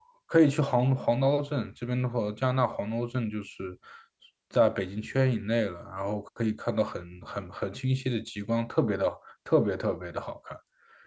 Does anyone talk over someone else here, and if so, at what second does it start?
none

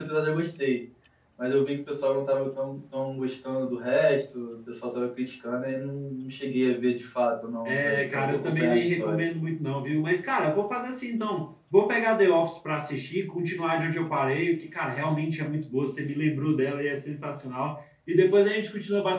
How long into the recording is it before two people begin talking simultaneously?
7.7 s

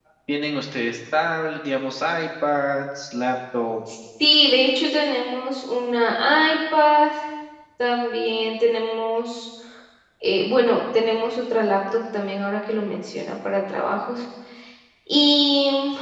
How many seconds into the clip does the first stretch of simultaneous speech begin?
none

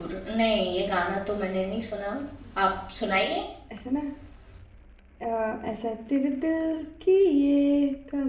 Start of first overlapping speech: none

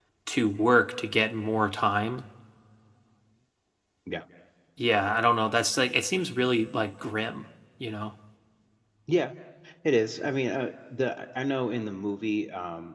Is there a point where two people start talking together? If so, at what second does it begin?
none

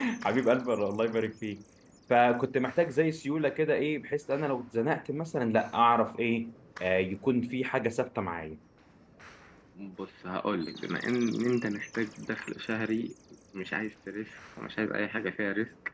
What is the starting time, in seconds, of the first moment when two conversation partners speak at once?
none

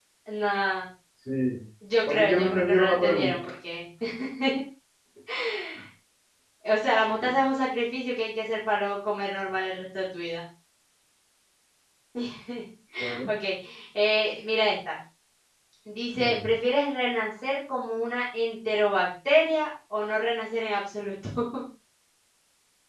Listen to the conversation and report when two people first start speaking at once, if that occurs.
2.1 s

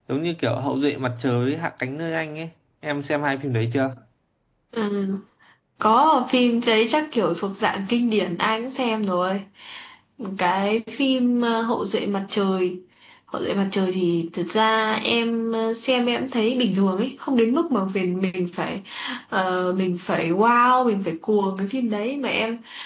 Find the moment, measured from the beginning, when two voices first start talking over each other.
none

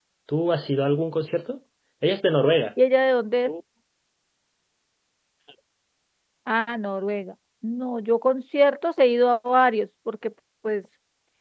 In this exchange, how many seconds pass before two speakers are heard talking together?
none

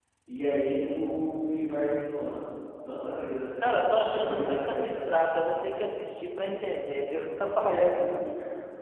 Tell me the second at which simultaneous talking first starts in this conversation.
3.6 s

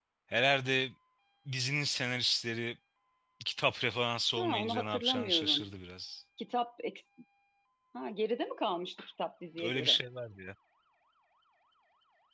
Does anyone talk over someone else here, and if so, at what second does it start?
4.4 s

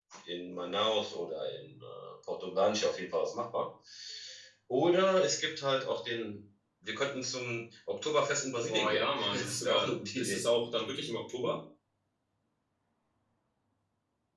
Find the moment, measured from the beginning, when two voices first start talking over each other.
8.7 s

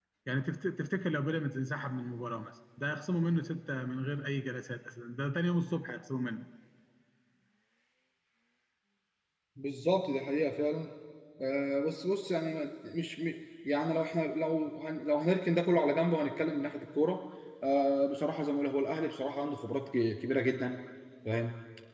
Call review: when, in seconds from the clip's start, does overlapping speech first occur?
none

